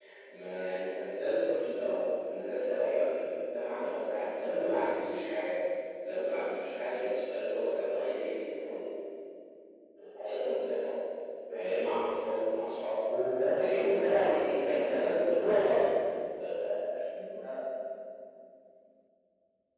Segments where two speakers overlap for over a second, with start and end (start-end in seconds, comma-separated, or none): 13.6-15.8